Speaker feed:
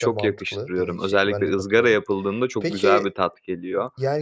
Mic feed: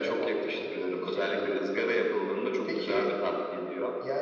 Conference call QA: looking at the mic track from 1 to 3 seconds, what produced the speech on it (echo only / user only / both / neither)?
echo only